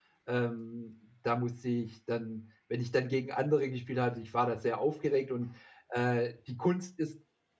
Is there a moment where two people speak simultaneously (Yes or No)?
No